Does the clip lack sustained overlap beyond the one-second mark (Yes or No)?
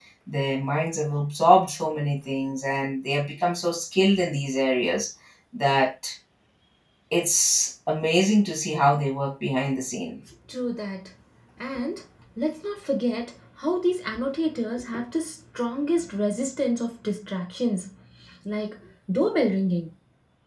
Yes